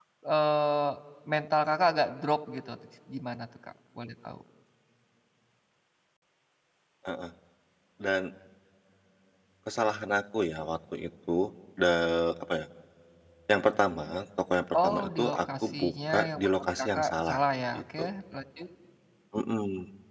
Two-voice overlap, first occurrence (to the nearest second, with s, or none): 15 s